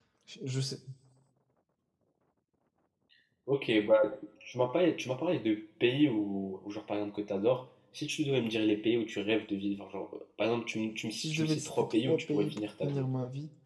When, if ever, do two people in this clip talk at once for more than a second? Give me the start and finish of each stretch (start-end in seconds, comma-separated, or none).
11.2-13.1